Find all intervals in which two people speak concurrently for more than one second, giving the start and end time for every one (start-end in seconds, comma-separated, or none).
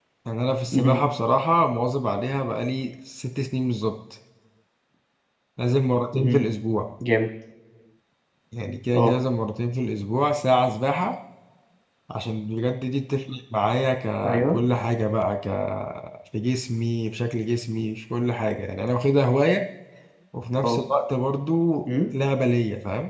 none